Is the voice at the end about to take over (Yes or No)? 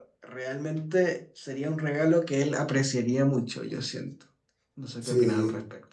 Yes